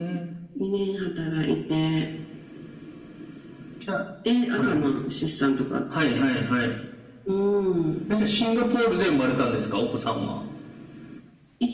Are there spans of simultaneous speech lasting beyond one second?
No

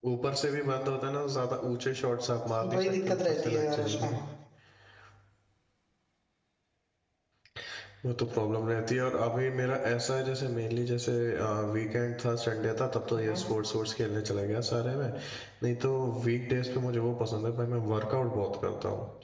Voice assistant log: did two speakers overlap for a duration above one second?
Yes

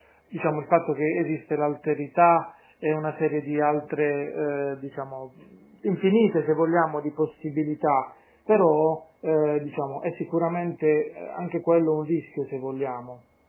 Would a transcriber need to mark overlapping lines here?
No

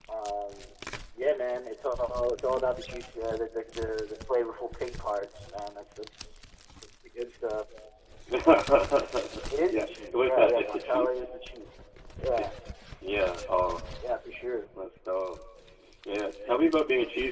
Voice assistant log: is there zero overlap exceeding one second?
No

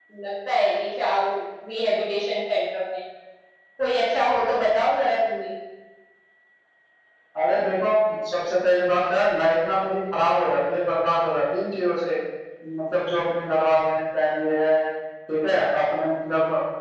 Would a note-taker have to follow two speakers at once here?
No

